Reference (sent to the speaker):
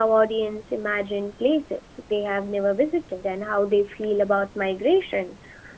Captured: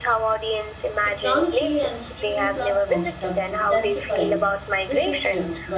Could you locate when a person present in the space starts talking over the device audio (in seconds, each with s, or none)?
1.0 s